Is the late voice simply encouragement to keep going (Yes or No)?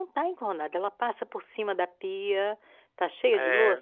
Yes